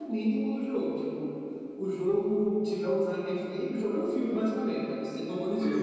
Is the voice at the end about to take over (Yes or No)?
No